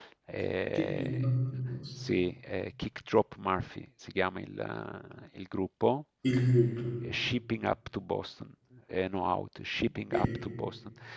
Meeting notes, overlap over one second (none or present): none